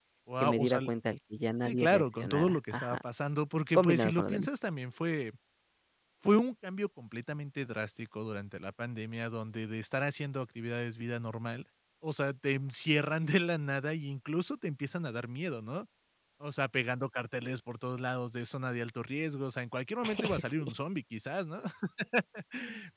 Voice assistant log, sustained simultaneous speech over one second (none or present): present